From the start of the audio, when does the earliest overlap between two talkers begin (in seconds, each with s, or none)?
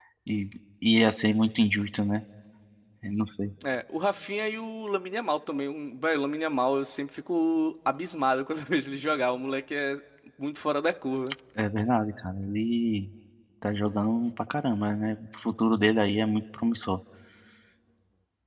none